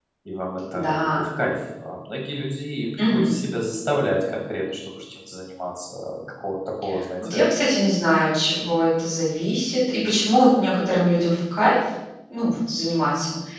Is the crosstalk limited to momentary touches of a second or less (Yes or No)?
Yes